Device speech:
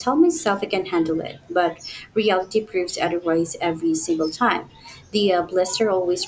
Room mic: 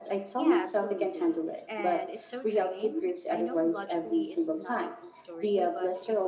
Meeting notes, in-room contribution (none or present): present